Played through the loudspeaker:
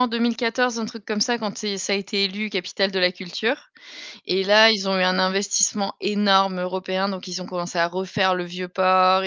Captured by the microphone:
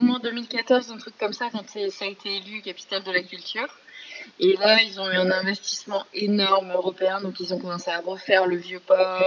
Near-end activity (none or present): none